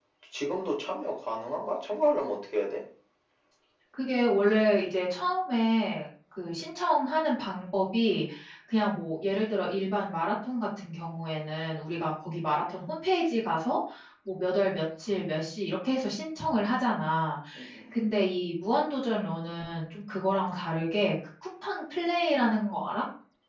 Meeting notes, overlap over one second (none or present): none